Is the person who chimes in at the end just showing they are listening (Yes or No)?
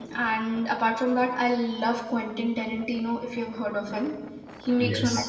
Yes